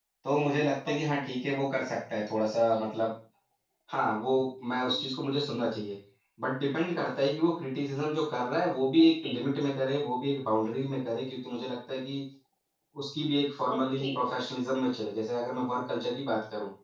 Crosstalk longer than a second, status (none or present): none